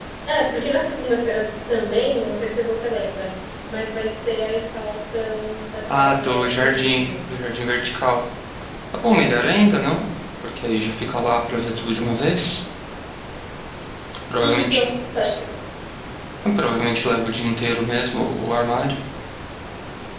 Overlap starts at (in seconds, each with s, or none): 5.9 s